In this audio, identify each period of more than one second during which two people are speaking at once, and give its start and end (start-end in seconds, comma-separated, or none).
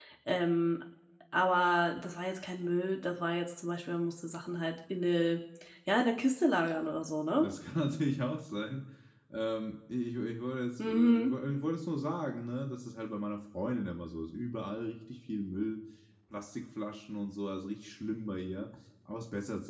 none